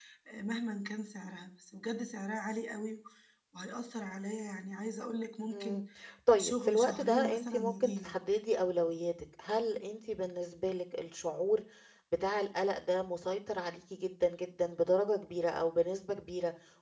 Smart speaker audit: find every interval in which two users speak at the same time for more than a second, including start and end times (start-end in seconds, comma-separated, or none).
6.3-8.2